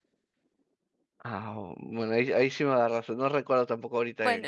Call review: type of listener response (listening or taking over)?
taking over